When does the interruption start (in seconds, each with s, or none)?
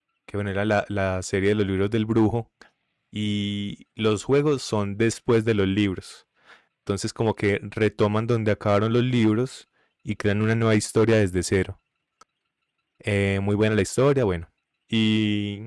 none